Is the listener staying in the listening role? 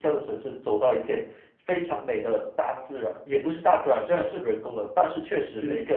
Yes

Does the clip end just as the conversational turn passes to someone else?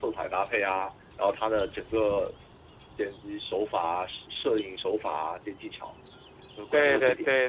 Yes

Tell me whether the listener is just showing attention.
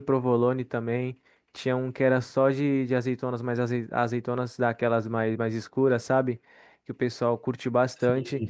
Yes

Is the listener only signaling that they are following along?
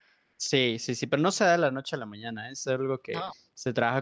Yes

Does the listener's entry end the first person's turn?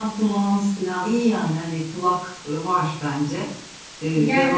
Yes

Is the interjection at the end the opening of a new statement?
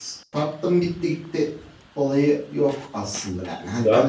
Yes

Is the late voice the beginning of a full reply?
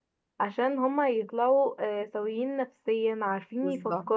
No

